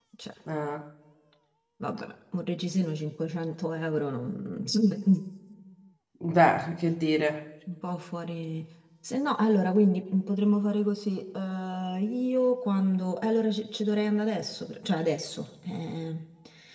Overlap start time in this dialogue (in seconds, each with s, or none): none